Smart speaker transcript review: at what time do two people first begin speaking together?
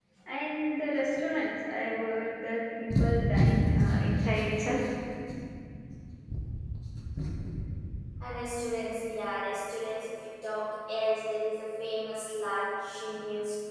none

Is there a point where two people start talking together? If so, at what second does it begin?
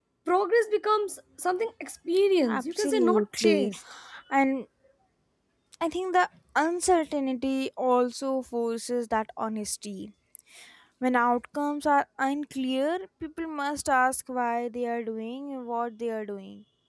2.5 s

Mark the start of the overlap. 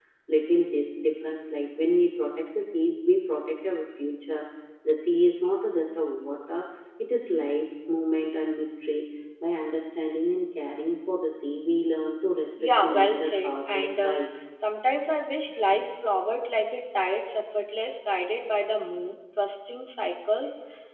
12.6 s

